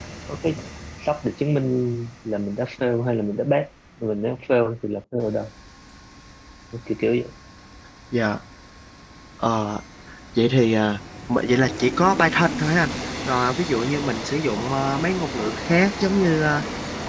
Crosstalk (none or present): none